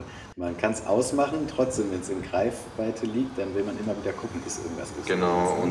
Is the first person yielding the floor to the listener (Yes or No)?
Yes